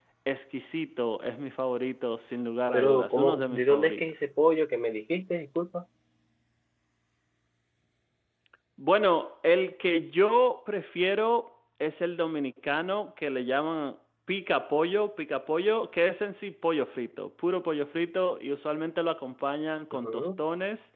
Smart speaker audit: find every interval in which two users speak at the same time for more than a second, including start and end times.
2.7-4.0

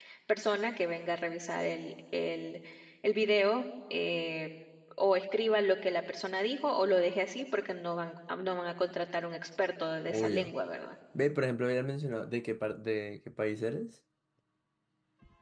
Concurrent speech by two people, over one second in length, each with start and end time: none

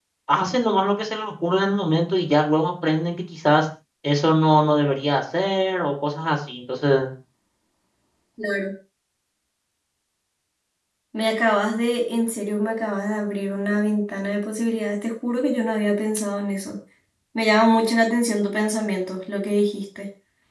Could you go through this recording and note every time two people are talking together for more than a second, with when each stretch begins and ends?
none

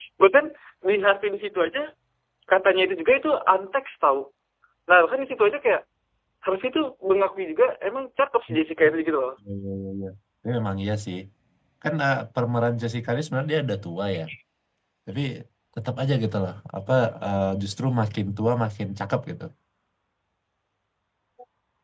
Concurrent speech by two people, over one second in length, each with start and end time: none

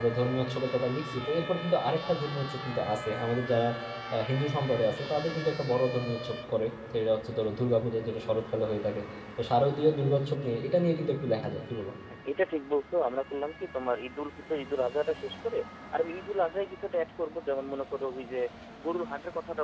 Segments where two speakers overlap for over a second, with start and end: none

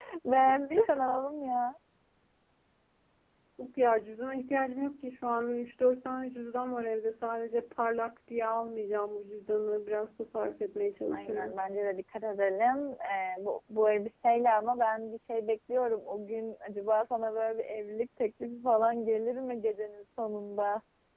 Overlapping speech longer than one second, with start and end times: none

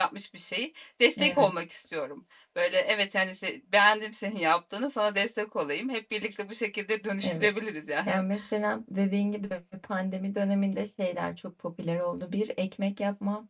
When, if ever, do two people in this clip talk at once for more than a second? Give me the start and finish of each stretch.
none

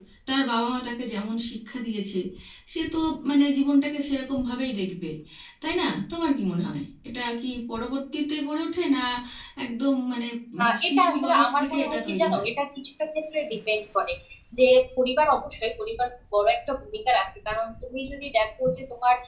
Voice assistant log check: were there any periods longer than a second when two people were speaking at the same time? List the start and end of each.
10.6-12.5

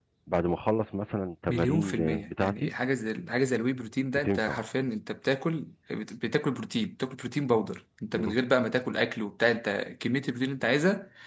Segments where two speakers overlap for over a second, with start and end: 1.5-2.7

